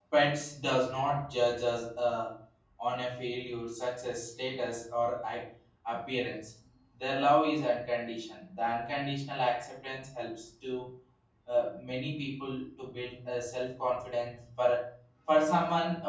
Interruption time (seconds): none

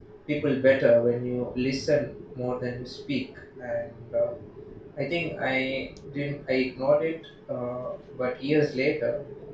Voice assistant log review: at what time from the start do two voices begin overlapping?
none

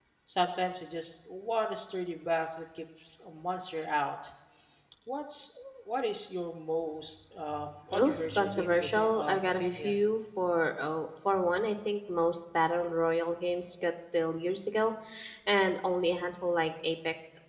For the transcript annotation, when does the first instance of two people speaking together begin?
7.9 s

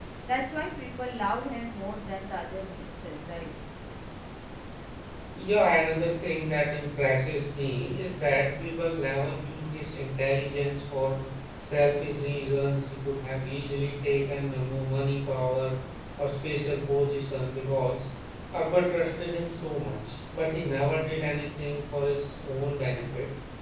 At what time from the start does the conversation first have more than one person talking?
none

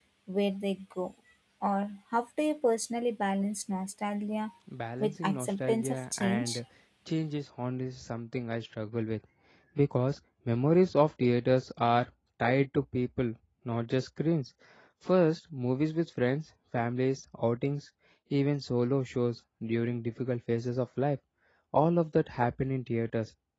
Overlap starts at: 5.0 s

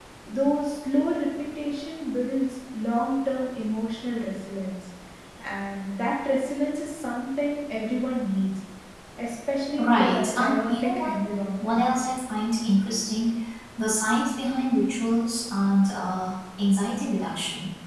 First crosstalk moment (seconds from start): 9.8 s

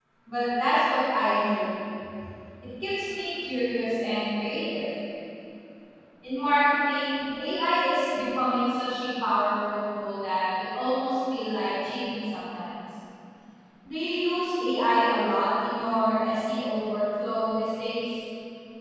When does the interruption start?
none

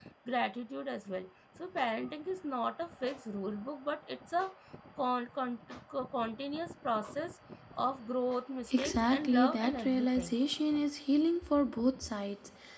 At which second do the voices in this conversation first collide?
8.7 s

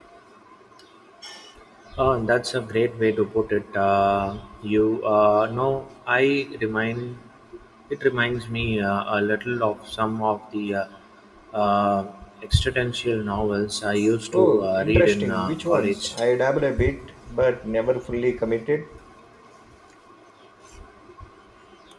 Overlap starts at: 14.3 s

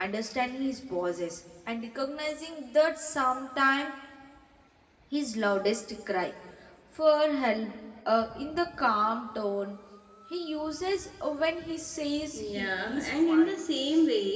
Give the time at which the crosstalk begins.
12.3 s

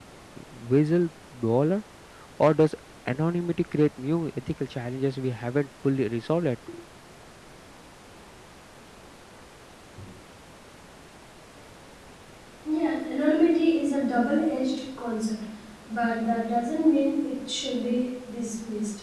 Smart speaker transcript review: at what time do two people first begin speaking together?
none

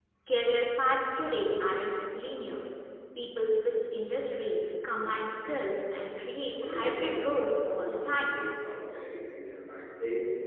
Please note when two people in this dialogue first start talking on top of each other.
6.5 s

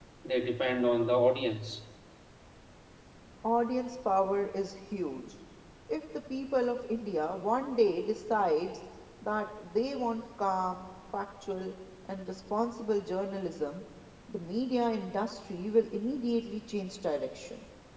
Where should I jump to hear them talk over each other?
none

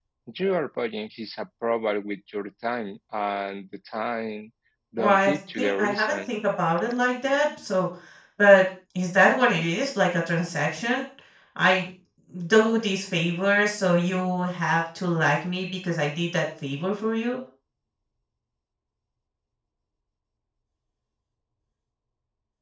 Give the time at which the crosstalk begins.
5.0 s

